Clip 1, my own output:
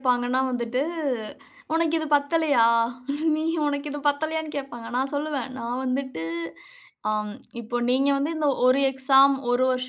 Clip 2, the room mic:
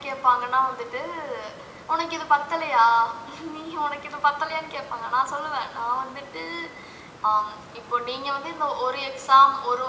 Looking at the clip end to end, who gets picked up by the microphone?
echo only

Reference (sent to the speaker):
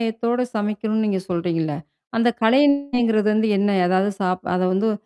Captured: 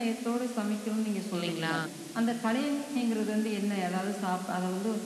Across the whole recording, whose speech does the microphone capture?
both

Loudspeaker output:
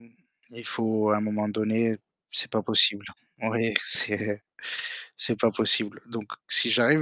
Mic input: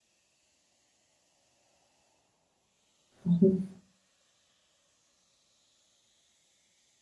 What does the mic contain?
user only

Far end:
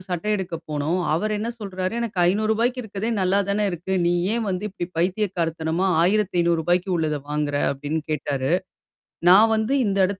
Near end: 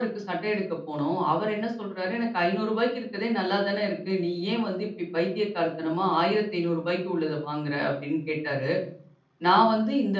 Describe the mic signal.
echo only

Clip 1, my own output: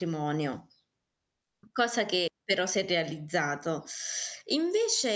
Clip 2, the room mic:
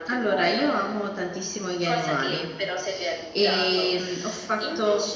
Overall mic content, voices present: both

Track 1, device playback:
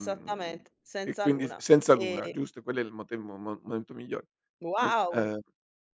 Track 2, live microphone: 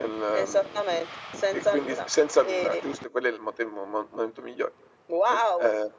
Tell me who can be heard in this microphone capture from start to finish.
echo only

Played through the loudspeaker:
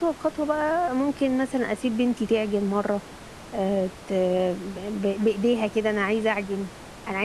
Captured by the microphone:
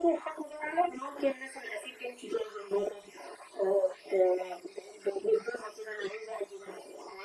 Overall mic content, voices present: echo only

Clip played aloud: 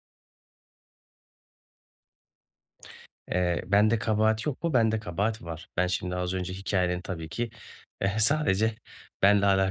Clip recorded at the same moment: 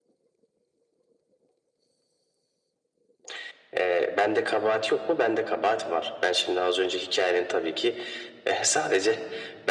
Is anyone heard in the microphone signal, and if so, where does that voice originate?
echo only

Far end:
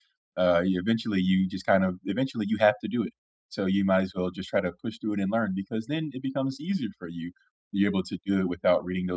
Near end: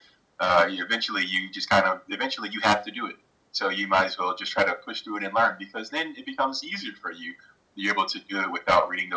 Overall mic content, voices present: echo only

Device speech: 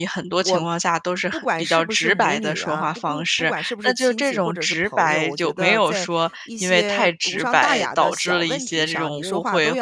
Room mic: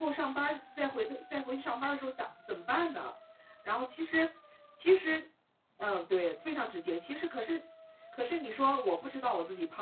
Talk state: user only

